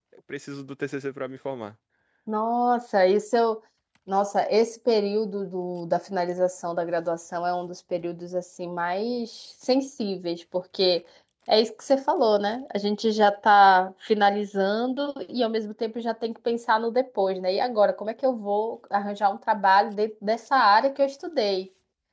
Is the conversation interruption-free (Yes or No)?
Yes